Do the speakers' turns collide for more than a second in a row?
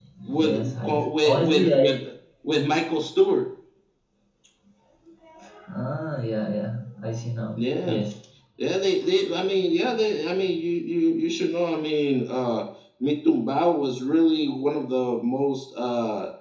Yes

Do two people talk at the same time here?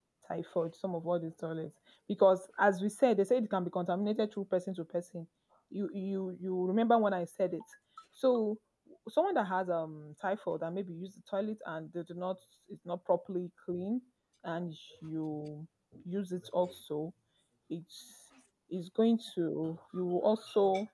No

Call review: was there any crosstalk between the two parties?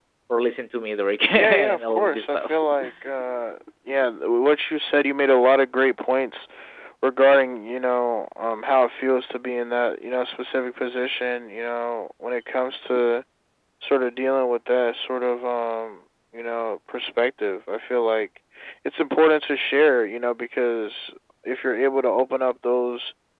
Yes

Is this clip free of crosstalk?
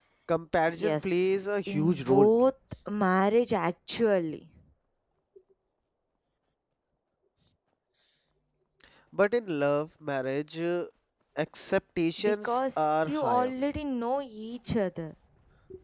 No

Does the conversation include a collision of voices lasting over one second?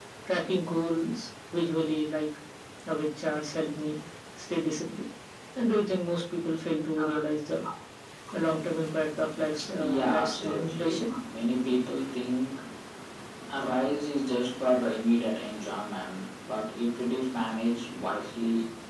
Yes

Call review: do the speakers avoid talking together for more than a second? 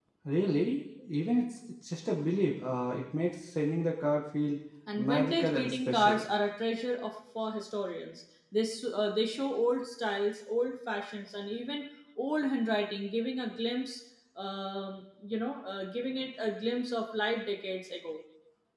No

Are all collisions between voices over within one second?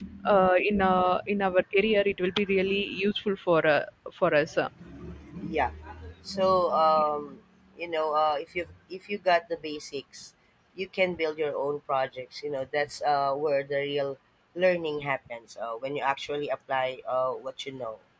Yes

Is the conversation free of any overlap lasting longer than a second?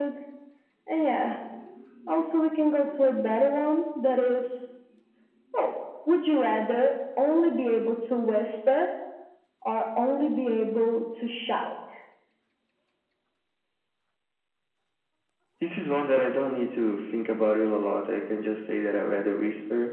Yes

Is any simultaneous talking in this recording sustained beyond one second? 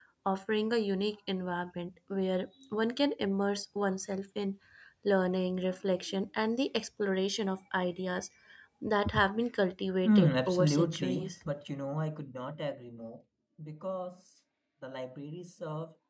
Yes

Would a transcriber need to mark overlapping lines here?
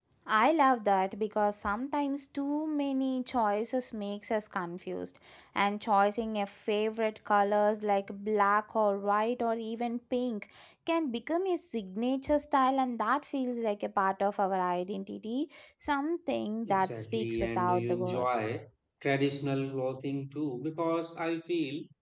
Yes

